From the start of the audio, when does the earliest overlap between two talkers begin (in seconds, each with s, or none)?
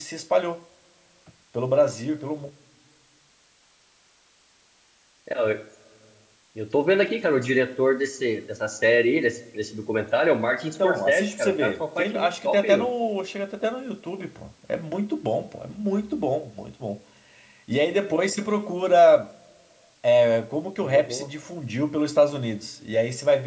10.8 s